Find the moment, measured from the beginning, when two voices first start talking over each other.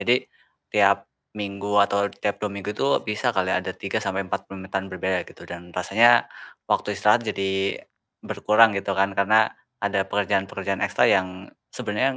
none

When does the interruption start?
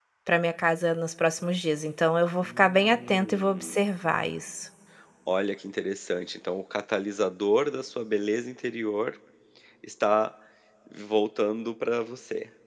2.4 s

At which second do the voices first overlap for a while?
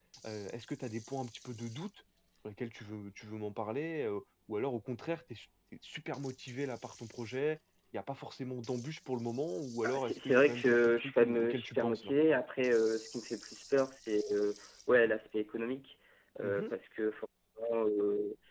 9.8 s

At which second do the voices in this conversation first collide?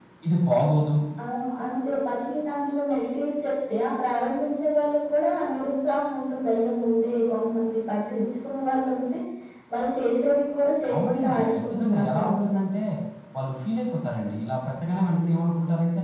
10.9 s

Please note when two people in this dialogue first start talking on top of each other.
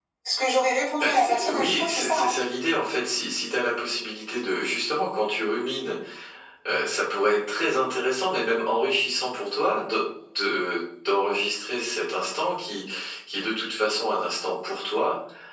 1.0 s

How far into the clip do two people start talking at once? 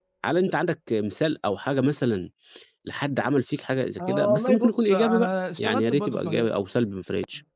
4.0 s

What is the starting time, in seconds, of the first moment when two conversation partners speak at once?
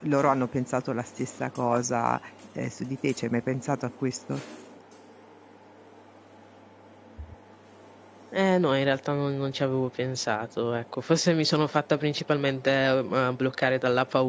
none

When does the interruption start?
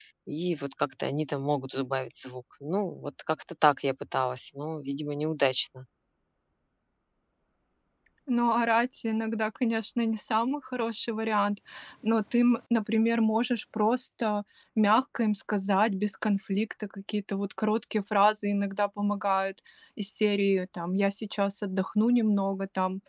none

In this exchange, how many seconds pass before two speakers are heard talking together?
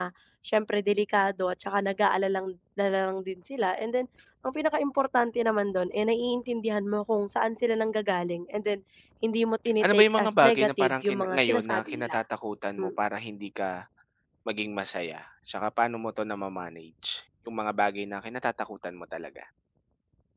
9.8 s

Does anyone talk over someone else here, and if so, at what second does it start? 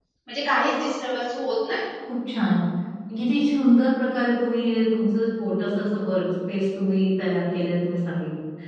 none

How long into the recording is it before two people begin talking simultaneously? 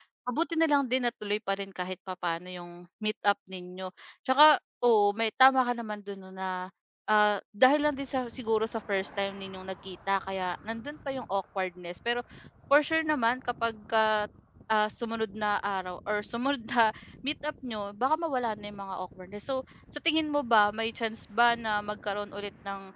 none

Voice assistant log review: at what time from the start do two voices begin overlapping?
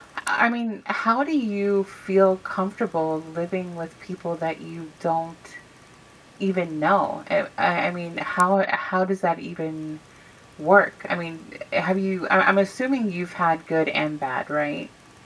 none

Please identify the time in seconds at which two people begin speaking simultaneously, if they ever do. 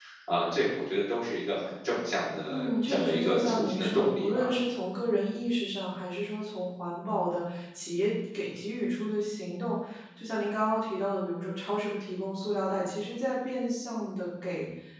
2.5 s

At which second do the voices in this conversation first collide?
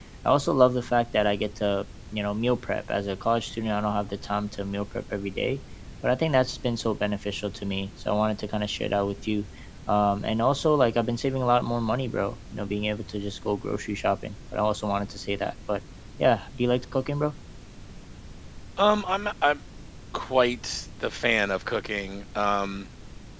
none

